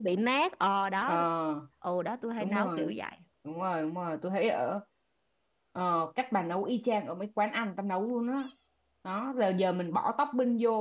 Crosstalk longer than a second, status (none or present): none